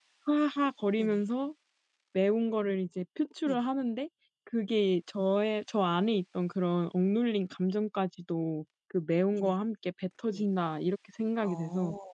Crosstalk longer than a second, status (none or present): none